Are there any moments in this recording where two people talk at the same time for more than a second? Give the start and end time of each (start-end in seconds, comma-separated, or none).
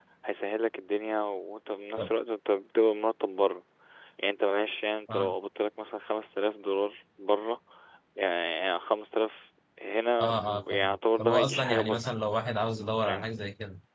10.2-12.0